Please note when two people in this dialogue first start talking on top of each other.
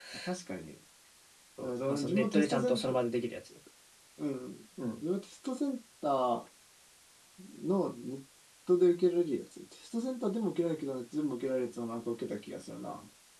1.6 s

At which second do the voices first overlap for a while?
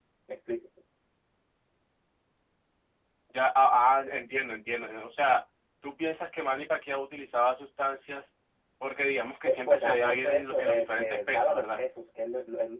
9.4 s

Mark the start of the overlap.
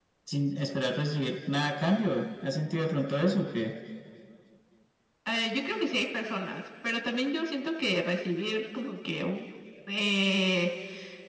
none

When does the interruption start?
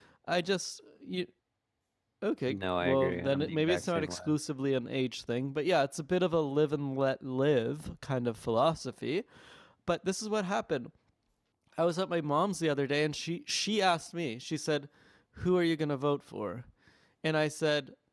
2.5 s

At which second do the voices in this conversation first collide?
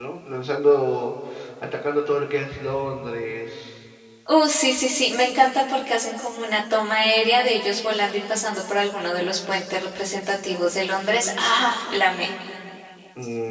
none

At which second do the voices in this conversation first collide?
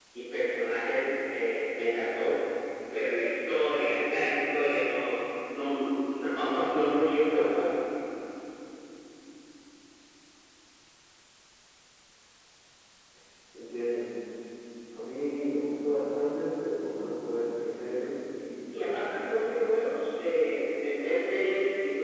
18.7 s

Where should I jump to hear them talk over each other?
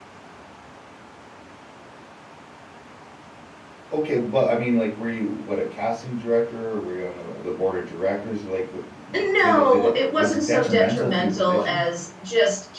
9.1 s

